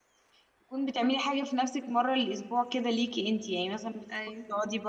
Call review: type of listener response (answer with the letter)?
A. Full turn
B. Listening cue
B